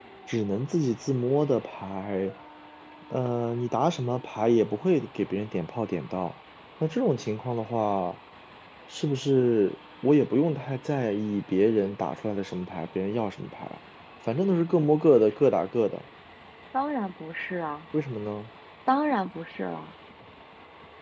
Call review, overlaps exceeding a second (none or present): none